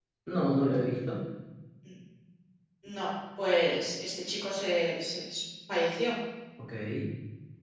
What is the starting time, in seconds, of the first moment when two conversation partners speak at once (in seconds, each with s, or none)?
none